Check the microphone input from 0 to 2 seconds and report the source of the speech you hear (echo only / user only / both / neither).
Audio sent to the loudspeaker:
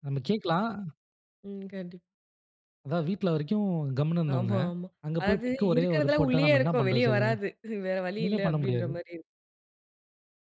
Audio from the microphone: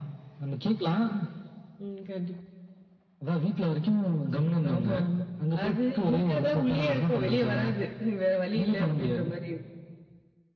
echo only